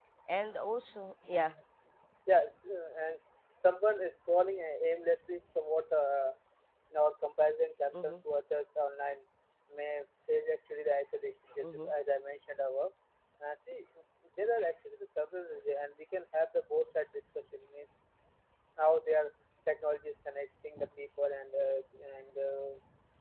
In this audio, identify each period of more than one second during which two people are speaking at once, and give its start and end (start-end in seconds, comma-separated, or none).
none